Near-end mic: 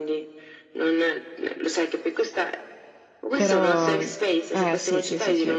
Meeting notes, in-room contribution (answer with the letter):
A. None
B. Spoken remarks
B